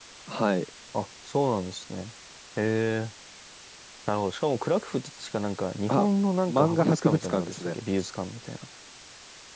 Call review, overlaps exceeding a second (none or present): present